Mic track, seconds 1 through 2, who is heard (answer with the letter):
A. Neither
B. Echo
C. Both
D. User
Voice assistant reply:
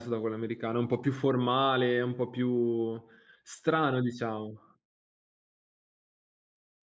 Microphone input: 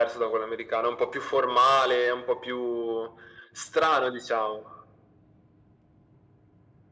B